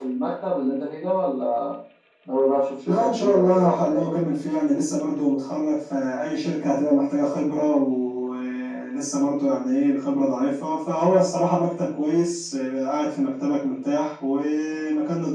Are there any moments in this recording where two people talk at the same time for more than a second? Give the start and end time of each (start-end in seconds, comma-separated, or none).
2.9-4.1